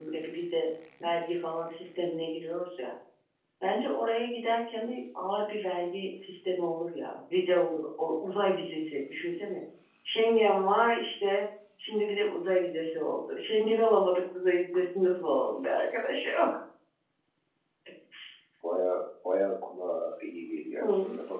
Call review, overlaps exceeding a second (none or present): none